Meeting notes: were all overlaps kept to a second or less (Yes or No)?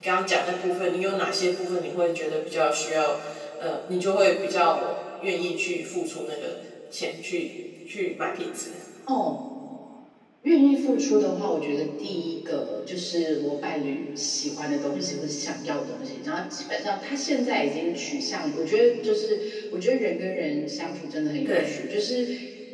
Yes